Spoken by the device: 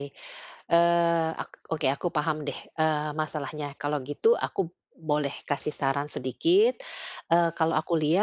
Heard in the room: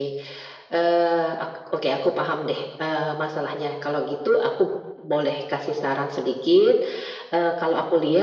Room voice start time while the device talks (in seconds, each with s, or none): none